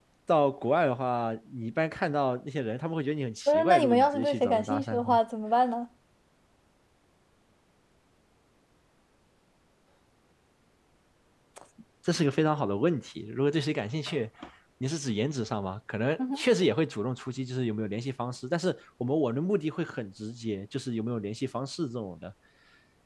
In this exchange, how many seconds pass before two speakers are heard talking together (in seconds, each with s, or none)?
3.5 s